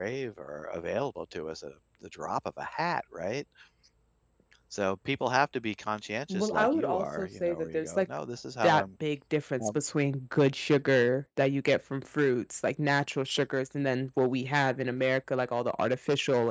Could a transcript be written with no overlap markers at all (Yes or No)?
No